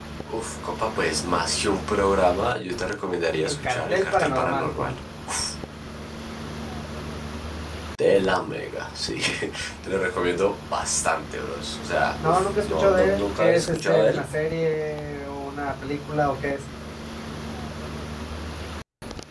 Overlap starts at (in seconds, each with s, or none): 3.4 s